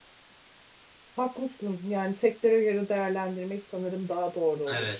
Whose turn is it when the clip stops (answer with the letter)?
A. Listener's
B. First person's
A